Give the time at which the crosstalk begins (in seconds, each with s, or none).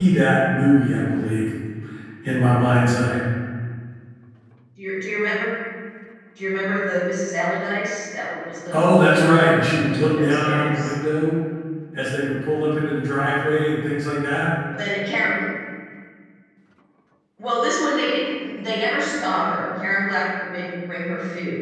8.7 s